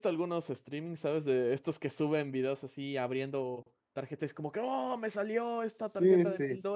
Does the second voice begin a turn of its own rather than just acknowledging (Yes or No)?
Yes